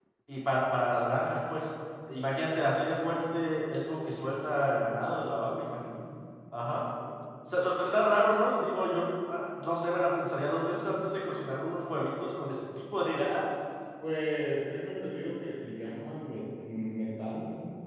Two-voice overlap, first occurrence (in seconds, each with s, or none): none